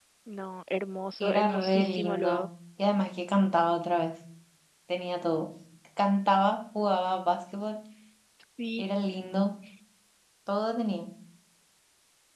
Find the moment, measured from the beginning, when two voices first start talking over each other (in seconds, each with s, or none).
1.2 s